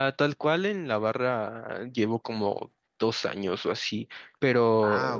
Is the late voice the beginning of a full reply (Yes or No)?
No